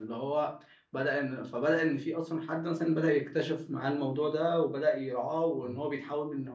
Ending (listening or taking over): listening